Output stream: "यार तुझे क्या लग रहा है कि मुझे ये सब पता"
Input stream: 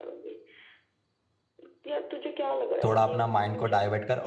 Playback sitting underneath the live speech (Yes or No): Yes